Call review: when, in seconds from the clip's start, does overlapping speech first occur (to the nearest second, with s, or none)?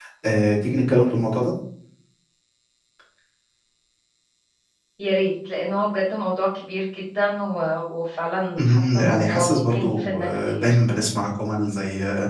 9 s